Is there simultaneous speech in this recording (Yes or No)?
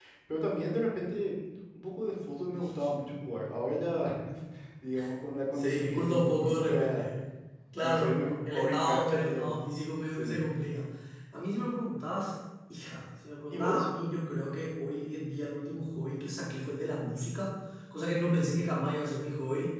Yes